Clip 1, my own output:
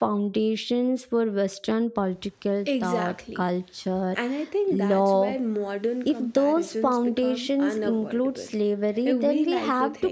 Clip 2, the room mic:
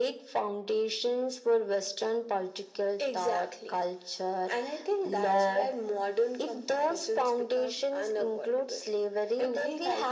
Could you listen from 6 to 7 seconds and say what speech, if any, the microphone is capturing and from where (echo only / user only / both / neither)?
echo only